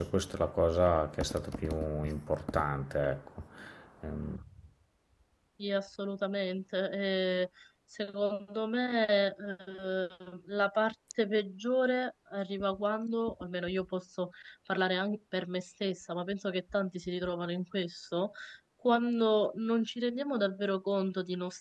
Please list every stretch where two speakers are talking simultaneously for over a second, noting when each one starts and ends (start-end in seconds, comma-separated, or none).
none